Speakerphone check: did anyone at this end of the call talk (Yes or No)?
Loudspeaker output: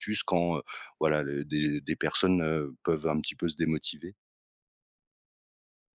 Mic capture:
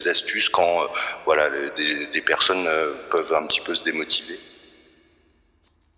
No